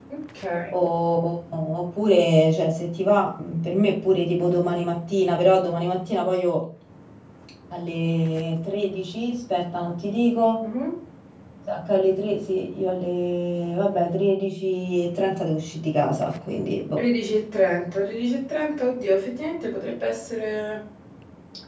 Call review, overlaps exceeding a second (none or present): none